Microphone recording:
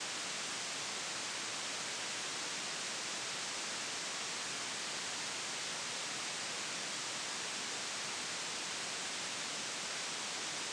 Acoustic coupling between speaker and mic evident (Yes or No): No